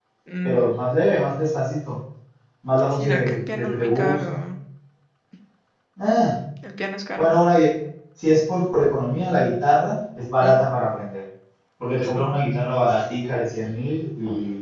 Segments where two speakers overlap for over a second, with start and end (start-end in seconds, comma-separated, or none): 2.9-4.4